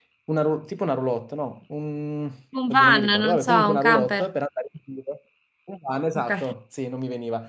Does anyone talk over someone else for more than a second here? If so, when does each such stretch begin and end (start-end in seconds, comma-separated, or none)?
2.7-4.2